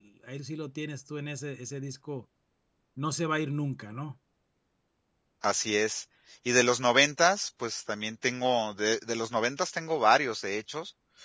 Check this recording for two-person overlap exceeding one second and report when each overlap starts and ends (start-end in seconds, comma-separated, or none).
none